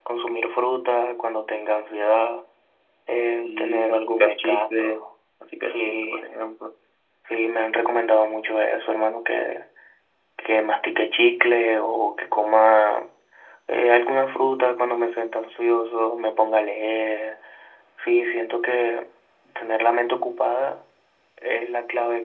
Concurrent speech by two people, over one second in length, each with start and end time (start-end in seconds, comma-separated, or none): 3.4-5.0